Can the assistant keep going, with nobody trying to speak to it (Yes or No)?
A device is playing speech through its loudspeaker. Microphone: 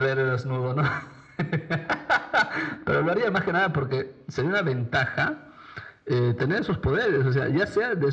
Yes